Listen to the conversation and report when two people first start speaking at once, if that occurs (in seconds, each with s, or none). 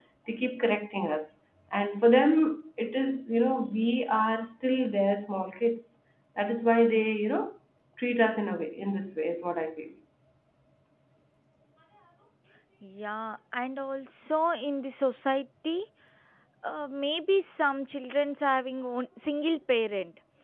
none